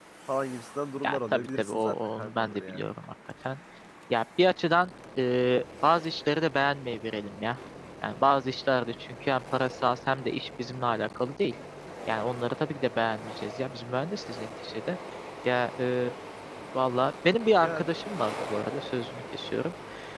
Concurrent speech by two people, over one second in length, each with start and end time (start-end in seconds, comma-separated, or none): 1.0-2.8